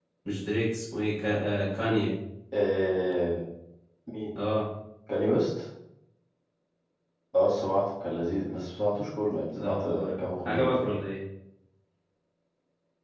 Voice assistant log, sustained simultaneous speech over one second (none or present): present